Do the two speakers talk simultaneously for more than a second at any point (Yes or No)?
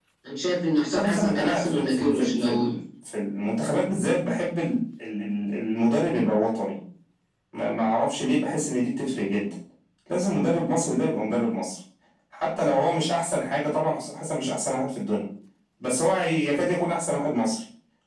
Yes